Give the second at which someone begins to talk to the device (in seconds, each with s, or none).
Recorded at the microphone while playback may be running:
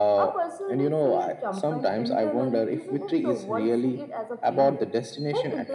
none